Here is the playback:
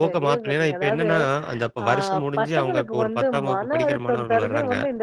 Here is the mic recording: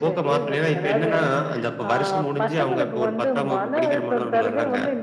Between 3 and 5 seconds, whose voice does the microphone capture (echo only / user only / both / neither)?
echo only